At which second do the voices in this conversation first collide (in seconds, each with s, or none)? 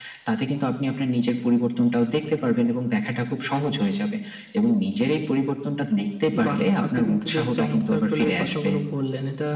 6.3 s